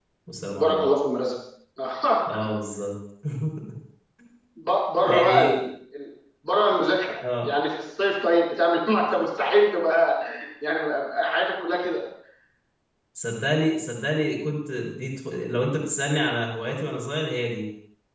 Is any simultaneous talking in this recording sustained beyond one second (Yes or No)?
No